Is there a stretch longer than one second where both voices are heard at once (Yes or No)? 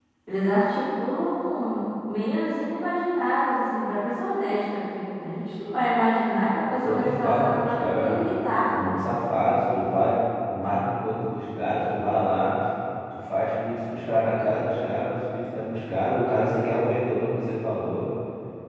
Yes